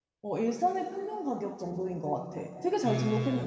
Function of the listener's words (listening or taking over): taking over